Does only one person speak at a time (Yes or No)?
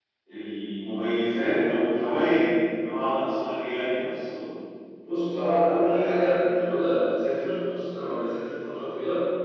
Yes